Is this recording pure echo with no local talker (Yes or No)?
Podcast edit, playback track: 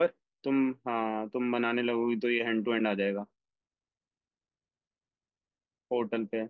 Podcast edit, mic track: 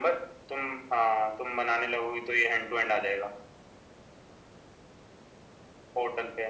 Yes